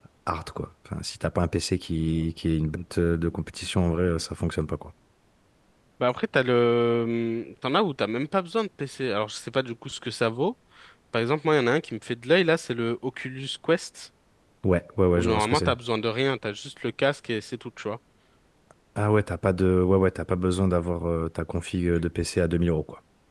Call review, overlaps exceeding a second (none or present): none